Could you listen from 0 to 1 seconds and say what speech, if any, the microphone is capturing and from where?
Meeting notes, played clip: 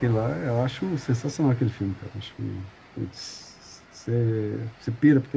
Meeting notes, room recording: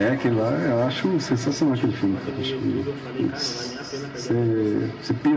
both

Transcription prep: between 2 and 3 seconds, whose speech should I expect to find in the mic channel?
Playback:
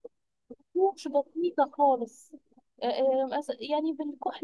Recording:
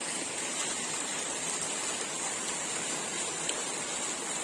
neither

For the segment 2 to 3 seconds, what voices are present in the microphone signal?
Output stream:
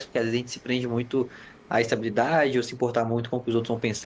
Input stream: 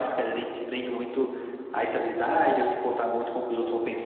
echo only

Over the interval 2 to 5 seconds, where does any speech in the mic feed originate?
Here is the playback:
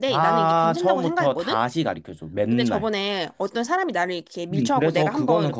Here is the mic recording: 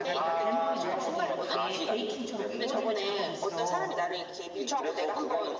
both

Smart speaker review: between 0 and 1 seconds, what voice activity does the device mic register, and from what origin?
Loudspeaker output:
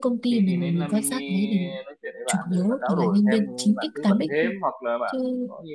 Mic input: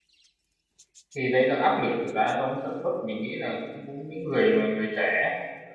neither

